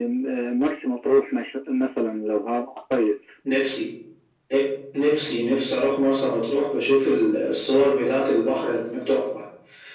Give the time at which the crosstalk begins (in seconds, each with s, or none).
none